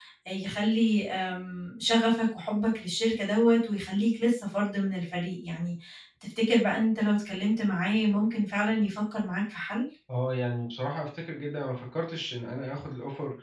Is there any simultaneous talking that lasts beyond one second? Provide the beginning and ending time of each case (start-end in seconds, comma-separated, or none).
none